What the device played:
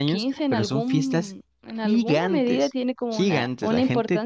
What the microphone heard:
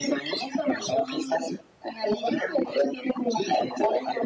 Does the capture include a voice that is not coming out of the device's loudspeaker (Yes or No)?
No